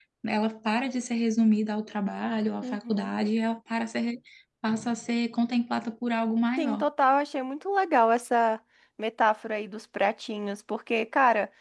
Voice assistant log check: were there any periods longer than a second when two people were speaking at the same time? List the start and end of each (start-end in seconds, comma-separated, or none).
none